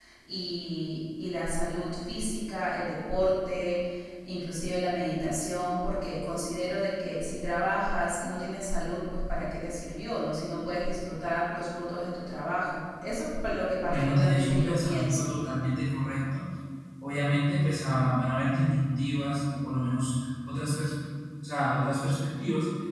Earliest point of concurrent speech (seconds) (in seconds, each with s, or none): 13.8 s